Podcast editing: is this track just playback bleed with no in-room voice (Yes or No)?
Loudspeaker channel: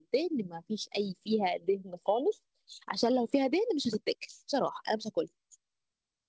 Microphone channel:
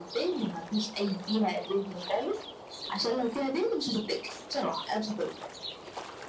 Yes